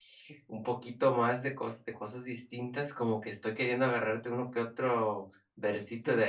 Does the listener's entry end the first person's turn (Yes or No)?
No